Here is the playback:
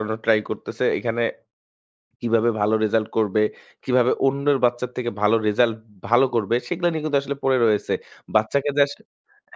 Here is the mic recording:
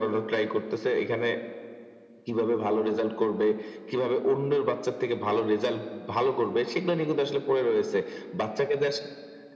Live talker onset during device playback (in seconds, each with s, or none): none